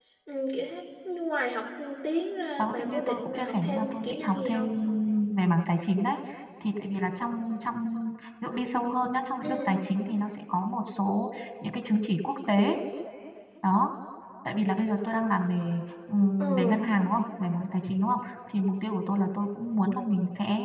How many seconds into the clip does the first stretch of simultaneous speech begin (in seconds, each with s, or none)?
2.6 s